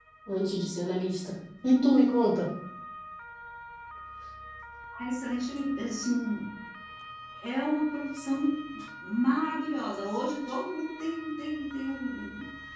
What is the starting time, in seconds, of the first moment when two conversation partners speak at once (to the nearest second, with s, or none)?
none